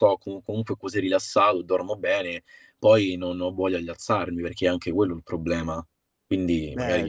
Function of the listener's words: taking over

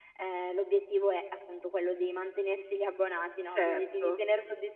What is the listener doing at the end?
listening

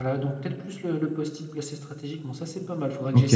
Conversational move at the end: taking over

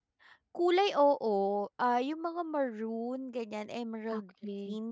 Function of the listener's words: taking over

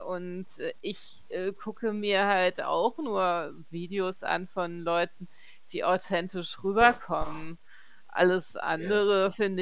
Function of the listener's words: listening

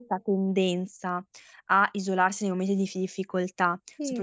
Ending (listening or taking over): listening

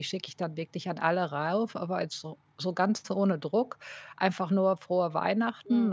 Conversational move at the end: listening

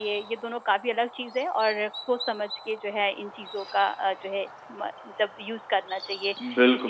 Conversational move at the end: taking over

